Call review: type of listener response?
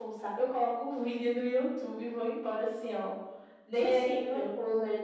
taking over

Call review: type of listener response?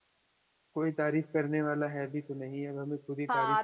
taking over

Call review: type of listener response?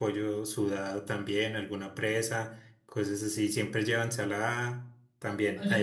taking over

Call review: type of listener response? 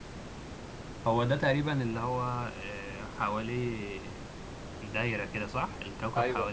listening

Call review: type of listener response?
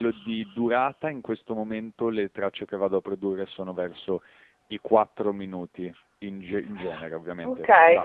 taking over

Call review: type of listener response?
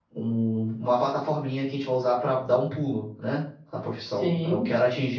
listening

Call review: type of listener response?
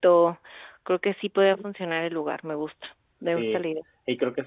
taking over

